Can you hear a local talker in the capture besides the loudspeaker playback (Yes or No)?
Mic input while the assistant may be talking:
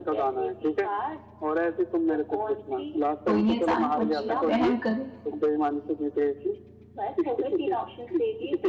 Yes